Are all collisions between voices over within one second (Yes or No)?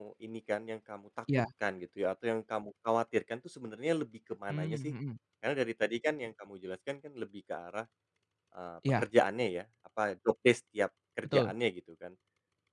Yes